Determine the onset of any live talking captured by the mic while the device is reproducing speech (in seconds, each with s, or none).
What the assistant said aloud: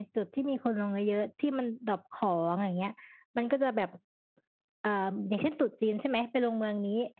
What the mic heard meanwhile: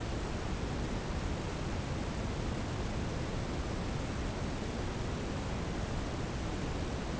none